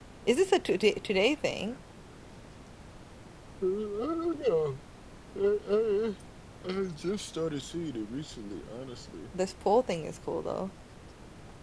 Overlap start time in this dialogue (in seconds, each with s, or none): none